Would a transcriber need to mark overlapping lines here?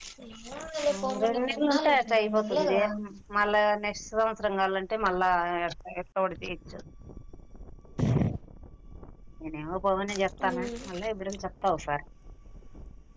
Yes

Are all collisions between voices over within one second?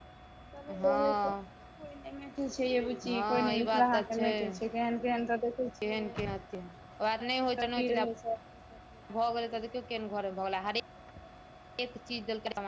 No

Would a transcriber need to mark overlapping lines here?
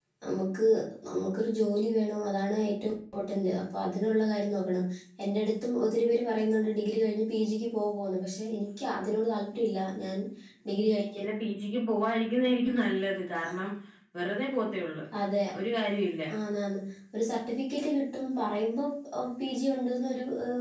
No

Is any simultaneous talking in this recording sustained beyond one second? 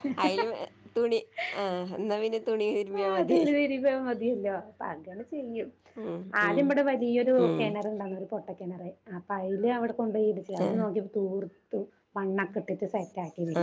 No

